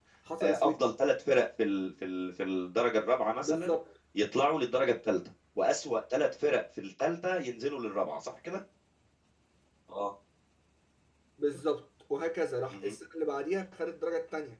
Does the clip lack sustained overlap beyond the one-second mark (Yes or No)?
Yes